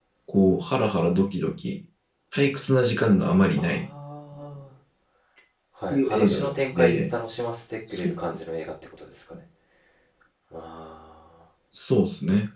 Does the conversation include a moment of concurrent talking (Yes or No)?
Yes